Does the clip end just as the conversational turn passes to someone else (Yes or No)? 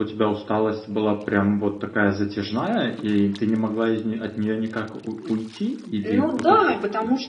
Yes